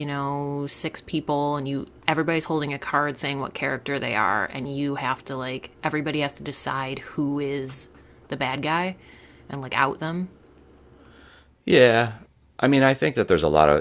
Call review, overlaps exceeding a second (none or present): none